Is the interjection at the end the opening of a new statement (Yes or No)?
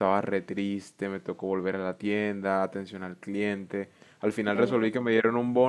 No